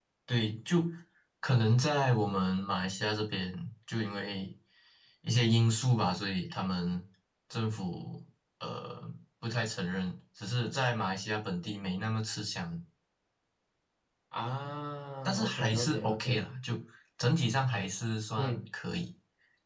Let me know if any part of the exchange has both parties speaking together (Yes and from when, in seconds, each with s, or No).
Yes, from 15.2 s